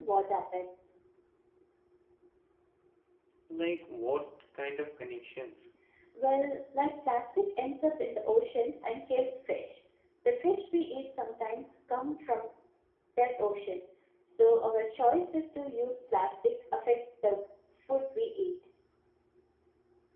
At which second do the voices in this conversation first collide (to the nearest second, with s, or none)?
none